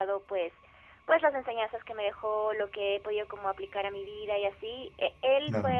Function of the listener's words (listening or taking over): listening